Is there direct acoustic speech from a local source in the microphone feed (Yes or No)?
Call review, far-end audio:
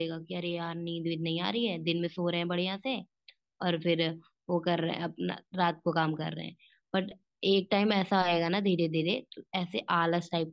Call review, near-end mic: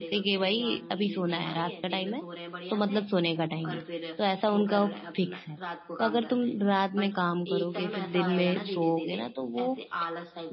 Yes